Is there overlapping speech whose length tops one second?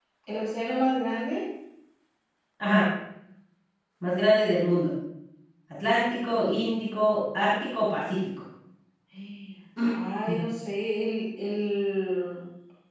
No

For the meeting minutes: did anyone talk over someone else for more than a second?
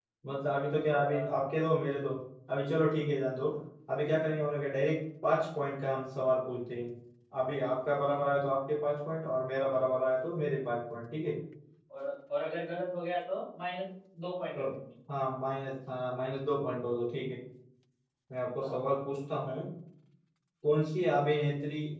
No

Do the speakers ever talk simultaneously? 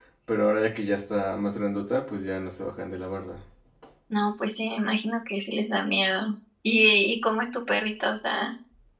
No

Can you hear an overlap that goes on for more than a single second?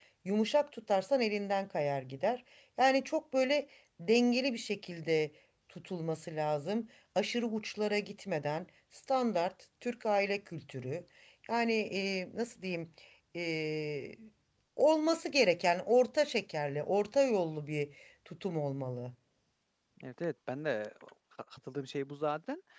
No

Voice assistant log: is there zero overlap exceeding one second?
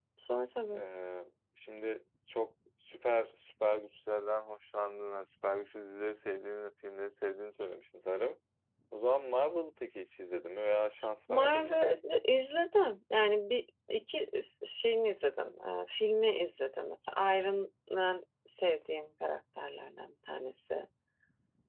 Yes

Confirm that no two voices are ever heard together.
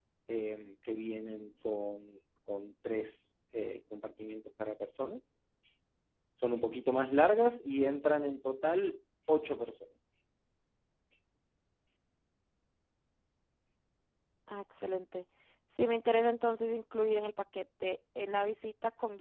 Yes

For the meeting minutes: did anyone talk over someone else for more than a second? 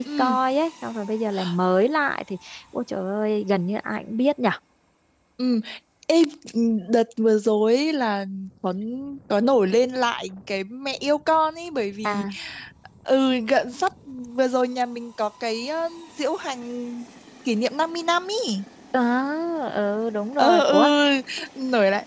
No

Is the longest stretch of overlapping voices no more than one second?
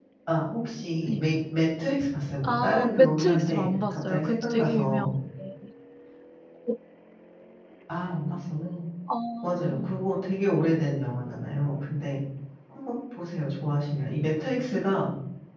No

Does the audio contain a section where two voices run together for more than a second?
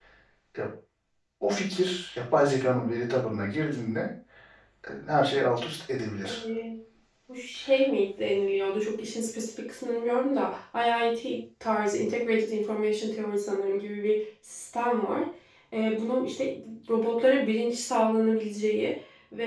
No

